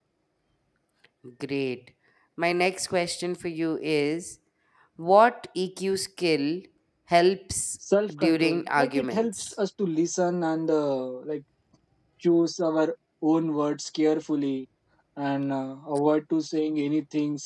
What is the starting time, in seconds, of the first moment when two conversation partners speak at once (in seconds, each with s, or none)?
8.2 s